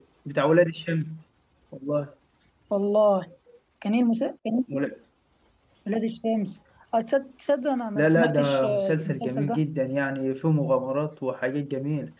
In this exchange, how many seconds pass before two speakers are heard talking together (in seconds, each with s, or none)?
8.0 s